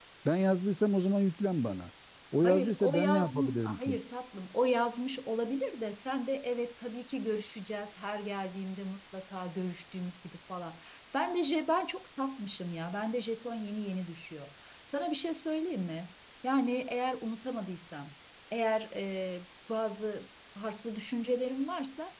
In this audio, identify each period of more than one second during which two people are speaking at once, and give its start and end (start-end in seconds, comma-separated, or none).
2.4-4.0